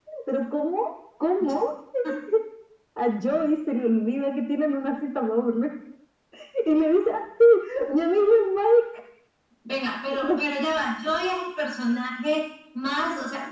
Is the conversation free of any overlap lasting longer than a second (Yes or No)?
Yes